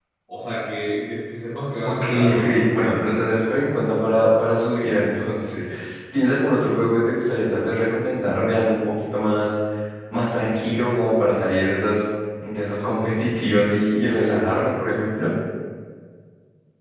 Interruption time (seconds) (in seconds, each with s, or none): 1.8 s